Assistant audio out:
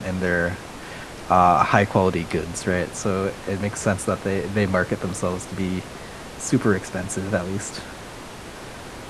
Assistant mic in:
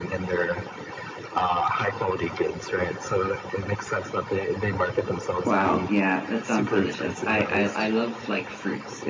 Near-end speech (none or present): present